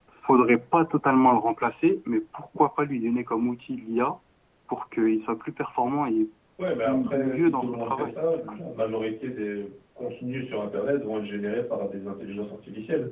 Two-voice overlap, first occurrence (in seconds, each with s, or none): 6.8 s